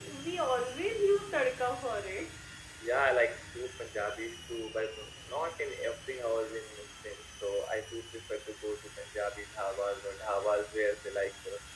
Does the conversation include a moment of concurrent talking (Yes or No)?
No